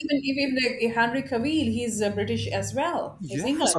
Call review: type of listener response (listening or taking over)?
taking over